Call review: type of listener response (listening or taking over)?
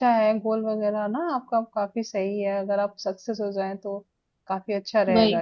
taking over